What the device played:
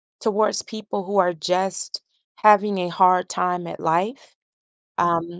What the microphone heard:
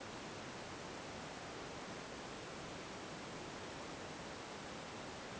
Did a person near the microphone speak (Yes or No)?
No